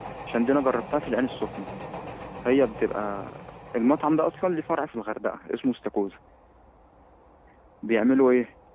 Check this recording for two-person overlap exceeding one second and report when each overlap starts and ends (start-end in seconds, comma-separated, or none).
none